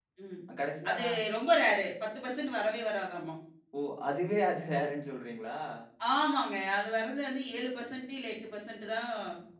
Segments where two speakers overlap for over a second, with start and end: none

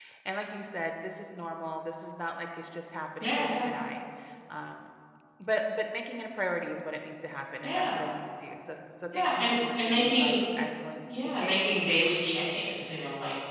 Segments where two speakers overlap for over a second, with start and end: 9.1-10.4

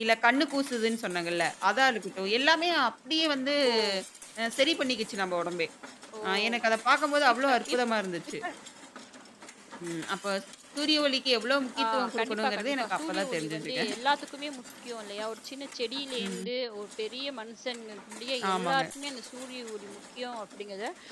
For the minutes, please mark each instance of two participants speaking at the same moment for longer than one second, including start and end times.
11.8-13.8

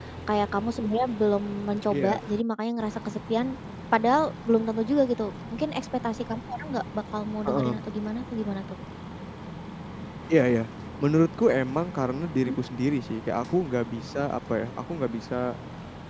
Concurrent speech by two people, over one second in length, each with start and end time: none

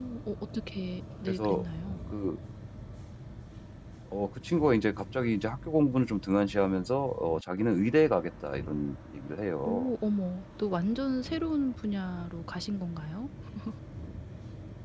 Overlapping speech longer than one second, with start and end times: none

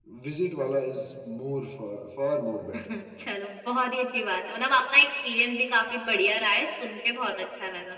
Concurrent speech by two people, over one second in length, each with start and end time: none

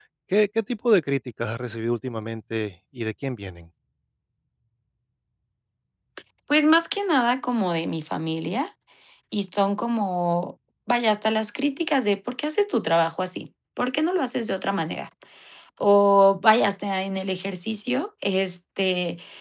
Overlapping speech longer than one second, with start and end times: none

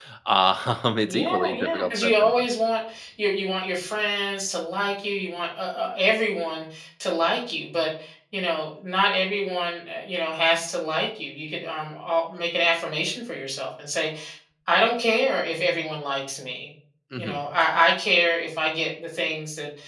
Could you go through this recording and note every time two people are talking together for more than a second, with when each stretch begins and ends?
1.1-2.4

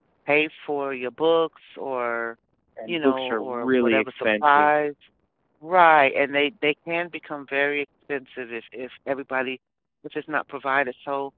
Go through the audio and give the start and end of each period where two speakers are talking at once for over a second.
2.9-4.7

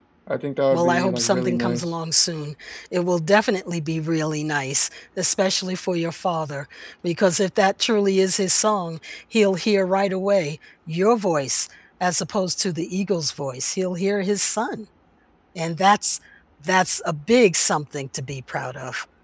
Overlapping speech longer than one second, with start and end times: 0.7-1.9

